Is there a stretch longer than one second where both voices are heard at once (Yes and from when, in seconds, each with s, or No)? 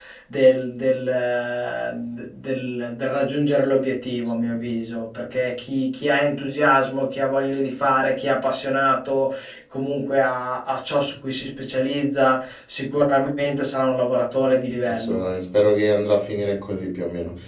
No